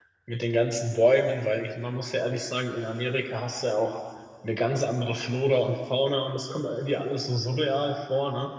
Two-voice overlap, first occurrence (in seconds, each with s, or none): none